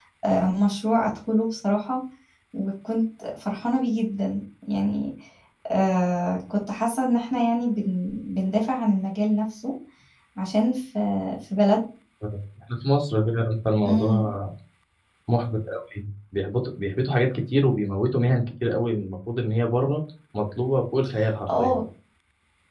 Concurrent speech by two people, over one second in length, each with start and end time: none

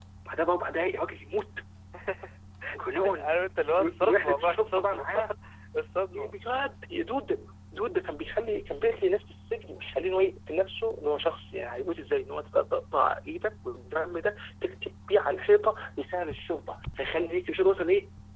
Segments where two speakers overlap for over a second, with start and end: 3.8-5.1

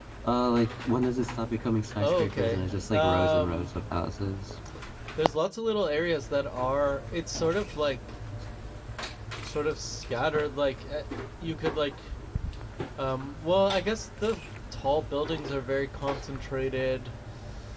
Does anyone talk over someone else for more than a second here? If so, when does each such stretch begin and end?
2.0-3.7

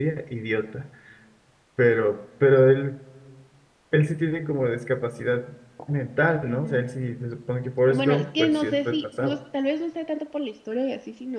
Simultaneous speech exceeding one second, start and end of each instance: 7.9-9.4

